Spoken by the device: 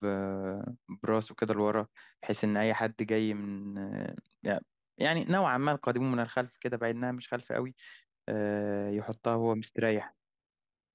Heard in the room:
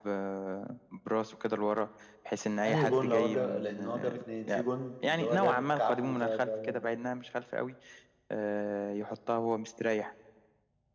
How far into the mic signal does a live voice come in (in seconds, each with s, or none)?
2.7 s